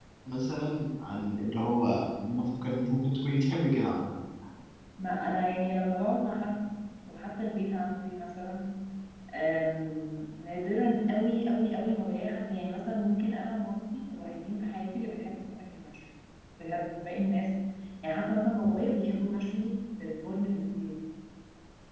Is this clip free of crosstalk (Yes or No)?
Yes